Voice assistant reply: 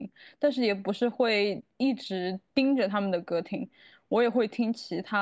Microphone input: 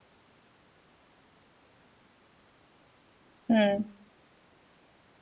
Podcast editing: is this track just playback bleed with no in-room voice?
No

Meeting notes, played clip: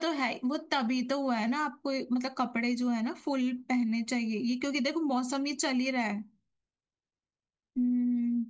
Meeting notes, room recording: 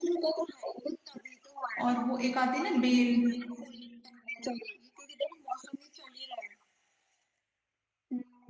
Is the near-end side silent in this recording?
No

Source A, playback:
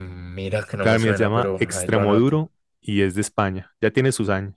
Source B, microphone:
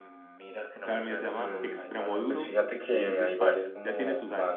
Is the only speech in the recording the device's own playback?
No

